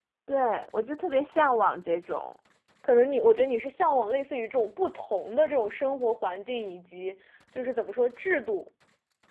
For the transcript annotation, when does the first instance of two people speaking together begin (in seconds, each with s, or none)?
none